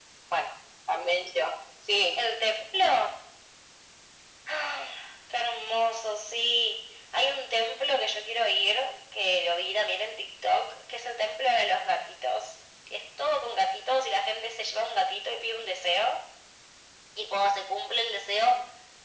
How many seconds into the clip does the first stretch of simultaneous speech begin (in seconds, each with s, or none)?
none